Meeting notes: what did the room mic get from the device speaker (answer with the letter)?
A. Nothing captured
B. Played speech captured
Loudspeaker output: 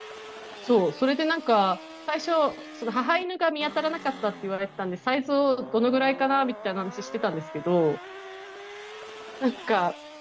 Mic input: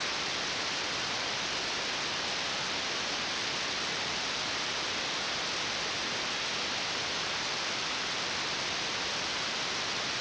A